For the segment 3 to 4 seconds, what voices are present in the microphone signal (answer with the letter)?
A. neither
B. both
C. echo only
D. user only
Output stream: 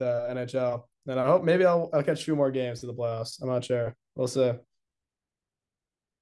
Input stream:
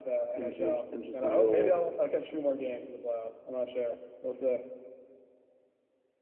C